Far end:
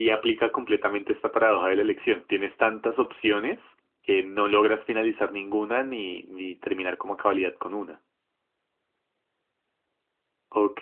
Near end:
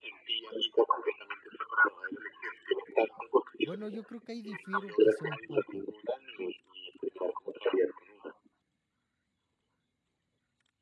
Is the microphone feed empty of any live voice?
No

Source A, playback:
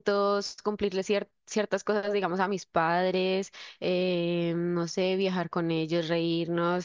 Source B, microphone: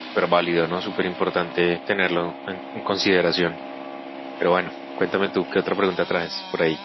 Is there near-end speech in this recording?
Yes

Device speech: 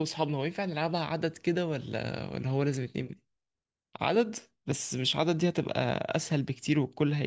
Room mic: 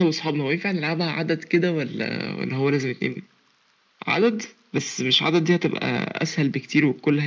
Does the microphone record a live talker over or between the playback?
No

